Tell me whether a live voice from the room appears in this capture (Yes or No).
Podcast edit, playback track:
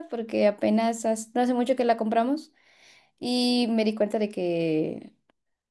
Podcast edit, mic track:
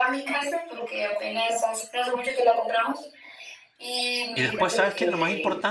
Yes